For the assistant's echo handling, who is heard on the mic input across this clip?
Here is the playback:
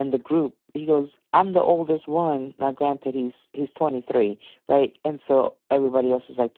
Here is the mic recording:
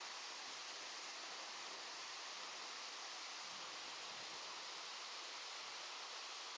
neither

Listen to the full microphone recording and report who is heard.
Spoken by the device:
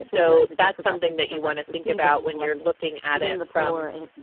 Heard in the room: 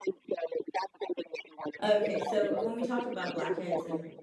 both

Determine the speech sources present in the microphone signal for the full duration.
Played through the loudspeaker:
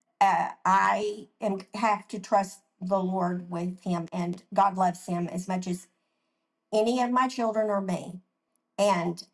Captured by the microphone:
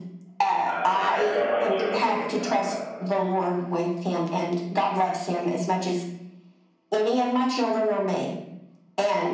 both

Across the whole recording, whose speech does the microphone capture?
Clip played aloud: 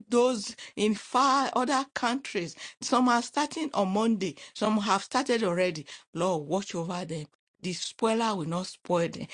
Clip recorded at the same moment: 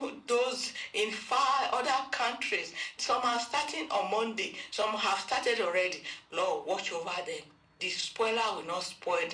echo only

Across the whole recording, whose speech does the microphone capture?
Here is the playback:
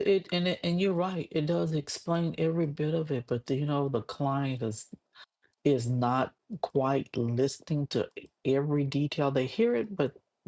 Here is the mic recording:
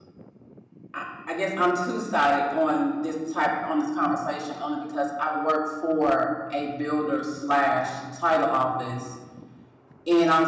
user only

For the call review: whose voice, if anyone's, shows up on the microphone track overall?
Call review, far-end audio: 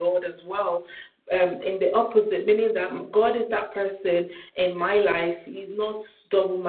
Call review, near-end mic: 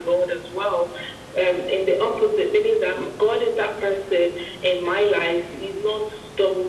echo only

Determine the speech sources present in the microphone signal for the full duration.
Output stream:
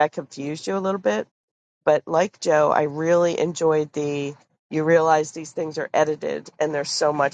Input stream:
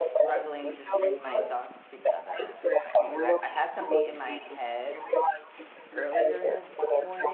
both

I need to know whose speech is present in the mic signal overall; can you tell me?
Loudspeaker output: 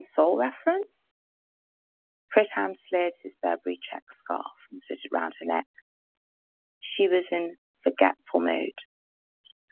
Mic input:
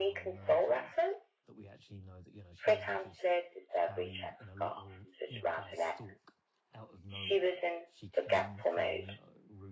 both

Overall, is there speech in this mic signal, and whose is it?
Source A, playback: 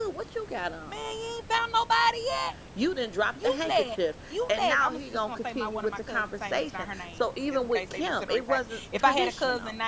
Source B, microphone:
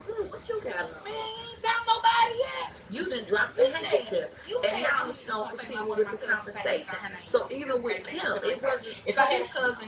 echo only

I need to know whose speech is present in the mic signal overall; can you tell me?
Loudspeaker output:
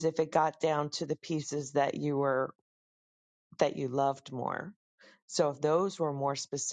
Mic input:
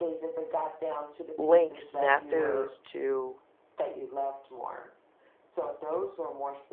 both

